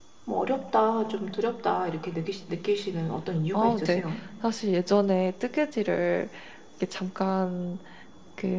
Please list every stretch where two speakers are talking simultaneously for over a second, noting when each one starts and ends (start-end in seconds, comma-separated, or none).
none